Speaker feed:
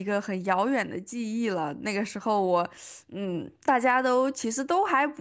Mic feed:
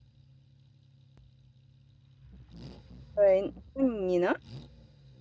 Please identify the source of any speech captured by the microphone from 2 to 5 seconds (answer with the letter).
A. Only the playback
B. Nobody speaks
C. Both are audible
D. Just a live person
D